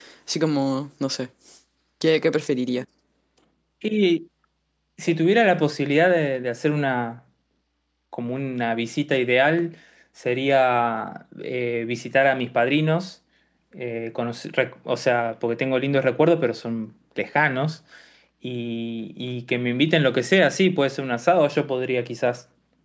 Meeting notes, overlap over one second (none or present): none